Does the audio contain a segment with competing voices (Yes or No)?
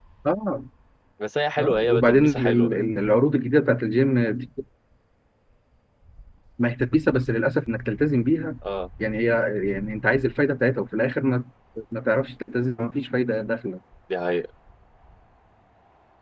Yes